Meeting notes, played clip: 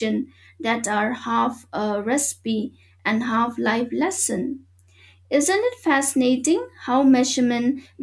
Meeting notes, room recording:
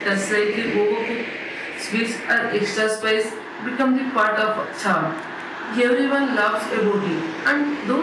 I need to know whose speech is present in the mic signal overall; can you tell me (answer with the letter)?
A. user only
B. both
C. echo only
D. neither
A